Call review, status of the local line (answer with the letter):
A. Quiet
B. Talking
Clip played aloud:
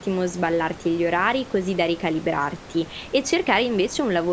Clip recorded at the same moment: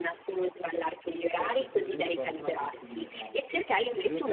B